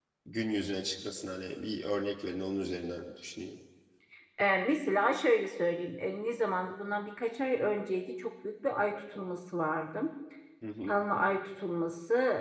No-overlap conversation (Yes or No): Yes